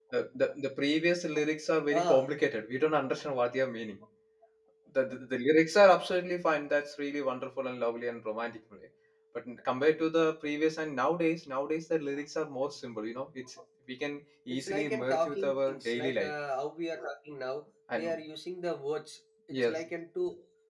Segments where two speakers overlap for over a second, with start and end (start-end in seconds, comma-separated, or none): 14.5-16.3